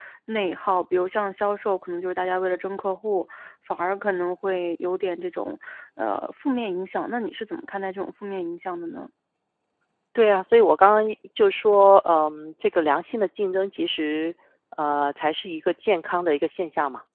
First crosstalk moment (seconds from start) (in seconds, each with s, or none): none